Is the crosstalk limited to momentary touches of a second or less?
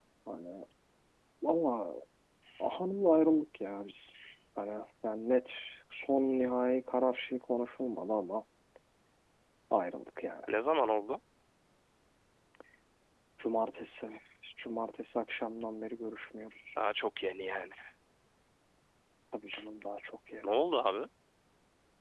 Yes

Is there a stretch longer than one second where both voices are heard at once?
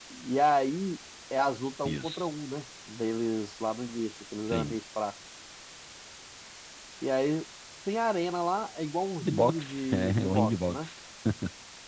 Yes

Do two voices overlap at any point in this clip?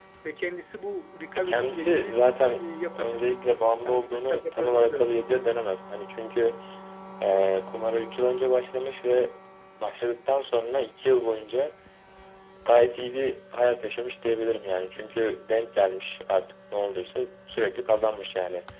Yes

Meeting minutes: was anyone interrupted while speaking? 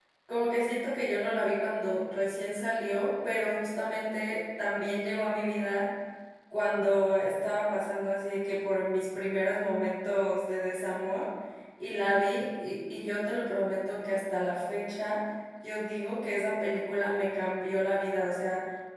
No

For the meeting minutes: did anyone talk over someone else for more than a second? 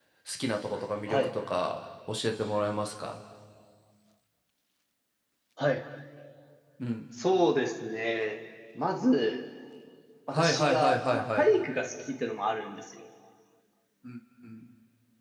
Yes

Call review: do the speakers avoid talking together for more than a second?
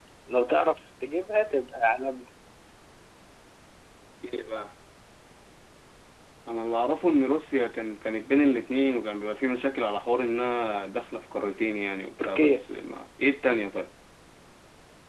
Yes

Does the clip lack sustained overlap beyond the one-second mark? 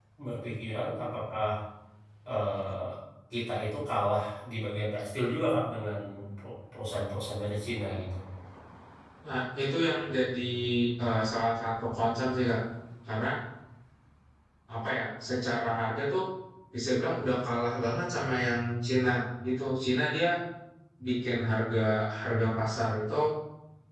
Yes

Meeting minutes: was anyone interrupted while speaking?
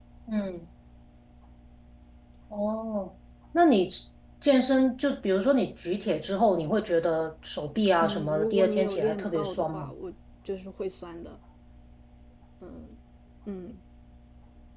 Yes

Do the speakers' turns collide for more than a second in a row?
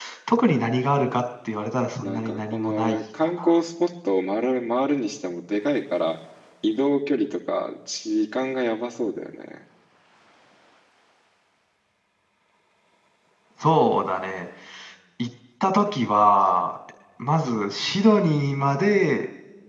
Yes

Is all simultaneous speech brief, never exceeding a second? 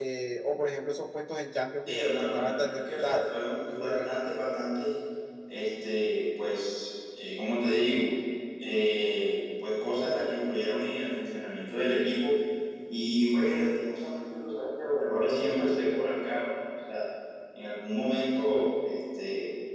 No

